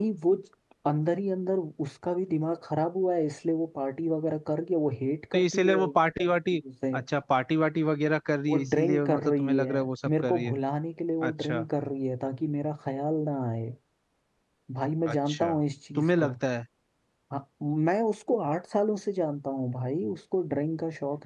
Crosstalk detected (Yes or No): Yes